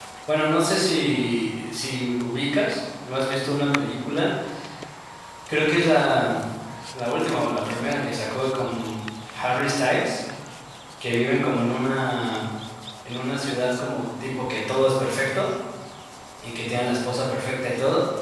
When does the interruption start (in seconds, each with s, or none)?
none